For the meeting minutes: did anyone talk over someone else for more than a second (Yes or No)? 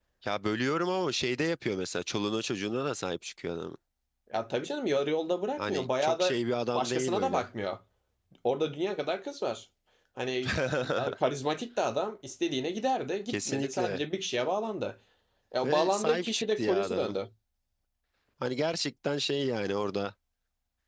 Yes